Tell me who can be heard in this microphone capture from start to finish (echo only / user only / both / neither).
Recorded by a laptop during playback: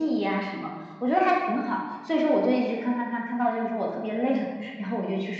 echo only